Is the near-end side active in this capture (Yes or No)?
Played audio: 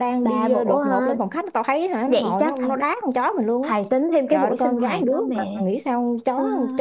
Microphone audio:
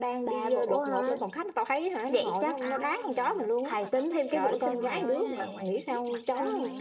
Yes